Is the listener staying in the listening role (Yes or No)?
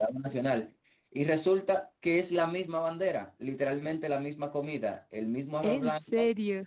Yes